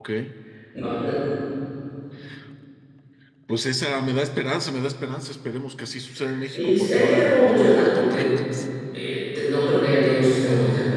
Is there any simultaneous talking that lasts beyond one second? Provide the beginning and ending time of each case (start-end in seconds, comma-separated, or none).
6.5-8.4